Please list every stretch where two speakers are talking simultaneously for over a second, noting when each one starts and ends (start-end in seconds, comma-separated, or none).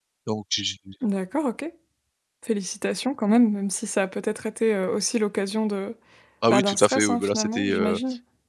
6.5-8.0